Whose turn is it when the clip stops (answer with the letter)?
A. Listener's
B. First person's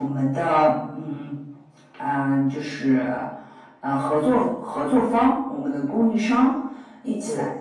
B